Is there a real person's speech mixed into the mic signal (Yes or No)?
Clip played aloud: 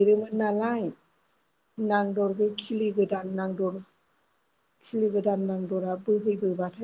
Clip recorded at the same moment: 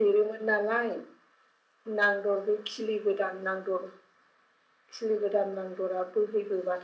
No